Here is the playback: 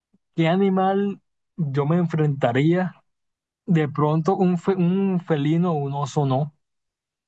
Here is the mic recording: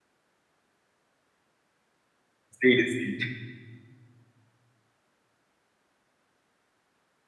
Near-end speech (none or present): present